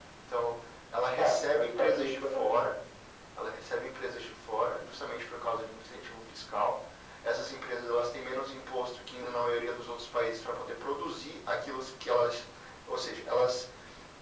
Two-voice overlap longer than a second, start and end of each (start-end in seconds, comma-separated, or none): 1.2-2.7